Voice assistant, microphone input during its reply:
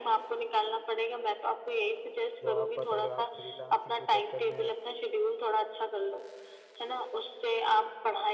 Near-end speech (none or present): present